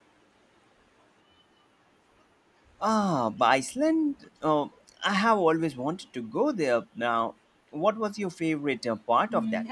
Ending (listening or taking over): taking over